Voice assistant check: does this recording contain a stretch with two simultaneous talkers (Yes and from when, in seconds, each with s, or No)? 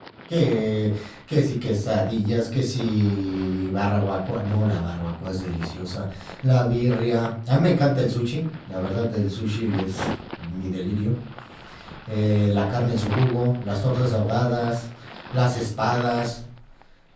No